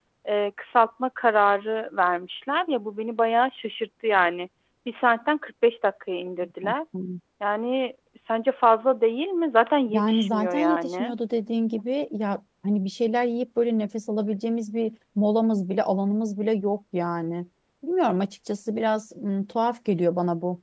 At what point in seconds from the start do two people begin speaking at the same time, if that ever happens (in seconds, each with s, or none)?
9.9 s